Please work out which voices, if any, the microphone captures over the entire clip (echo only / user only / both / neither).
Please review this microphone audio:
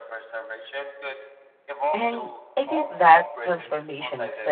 both